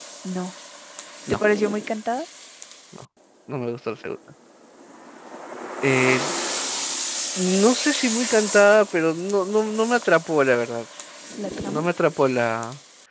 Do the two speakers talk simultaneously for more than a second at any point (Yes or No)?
No